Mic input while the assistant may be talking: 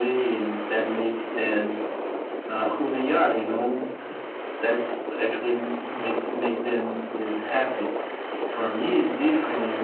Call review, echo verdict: present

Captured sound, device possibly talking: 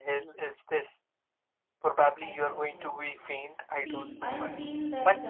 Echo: present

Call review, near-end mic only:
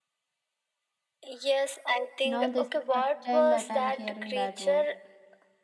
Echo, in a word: present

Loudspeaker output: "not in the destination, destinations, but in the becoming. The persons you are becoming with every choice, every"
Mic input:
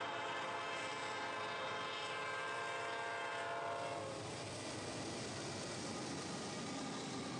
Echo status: none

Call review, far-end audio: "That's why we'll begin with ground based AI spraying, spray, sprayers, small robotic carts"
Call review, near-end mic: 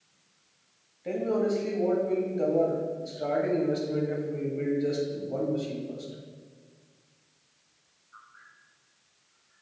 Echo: none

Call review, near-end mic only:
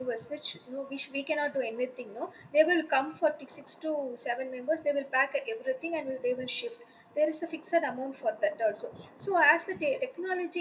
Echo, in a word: none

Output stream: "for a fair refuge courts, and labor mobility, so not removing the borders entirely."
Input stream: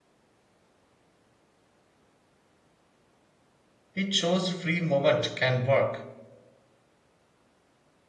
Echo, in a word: none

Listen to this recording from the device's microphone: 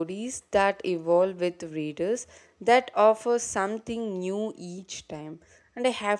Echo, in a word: none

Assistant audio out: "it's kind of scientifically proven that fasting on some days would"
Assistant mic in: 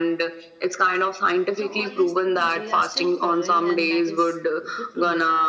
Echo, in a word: present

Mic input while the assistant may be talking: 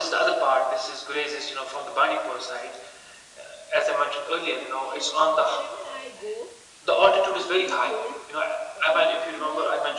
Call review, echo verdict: present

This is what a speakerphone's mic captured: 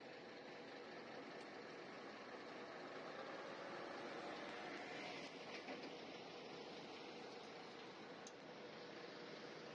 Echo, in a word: none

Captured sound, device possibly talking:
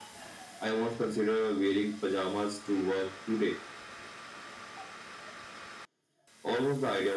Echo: present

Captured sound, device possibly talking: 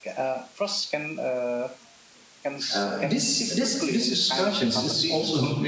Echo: present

